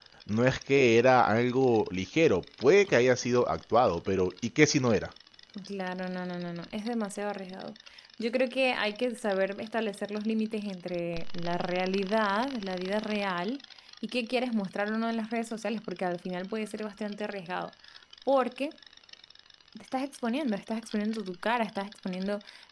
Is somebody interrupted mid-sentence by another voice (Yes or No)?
No